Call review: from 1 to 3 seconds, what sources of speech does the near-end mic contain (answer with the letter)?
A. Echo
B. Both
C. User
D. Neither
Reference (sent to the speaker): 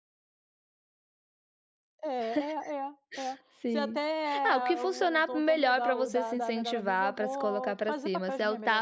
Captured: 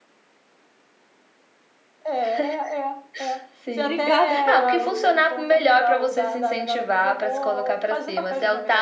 A